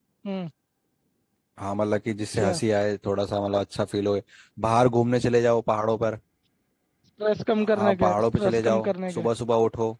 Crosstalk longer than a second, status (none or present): present